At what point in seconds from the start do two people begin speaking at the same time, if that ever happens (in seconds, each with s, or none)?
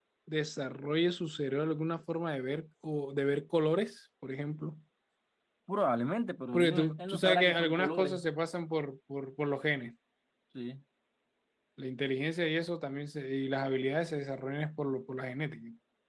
6.5 s